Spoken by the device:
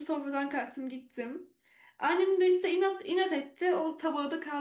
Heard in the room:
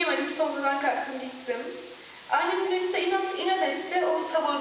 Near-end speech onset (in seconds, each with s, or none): none